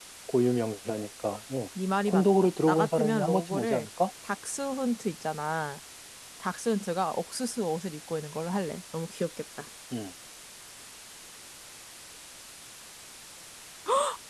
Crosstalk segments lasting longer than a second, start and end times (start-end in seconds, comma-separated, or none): 2.1-3.9